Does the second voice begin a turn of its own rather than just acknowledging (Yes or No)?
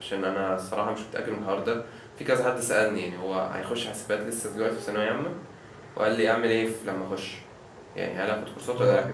No